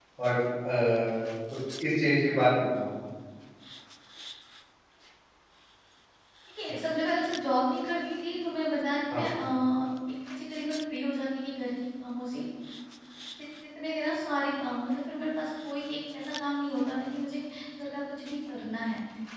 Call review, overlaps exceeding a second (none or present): none